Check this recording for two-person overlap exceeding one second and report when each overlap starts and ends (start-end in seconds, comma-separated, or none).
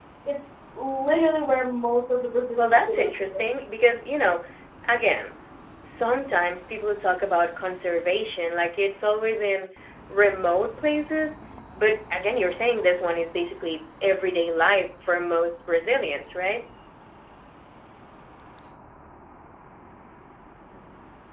2.5-3.8